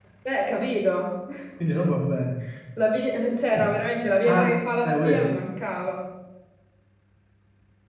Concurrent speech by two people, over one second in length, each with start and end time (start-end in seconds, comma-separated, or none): 4.2-5.5